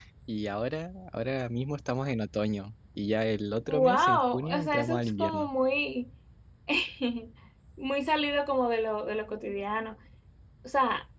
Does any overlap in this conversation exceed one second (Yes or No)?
Yes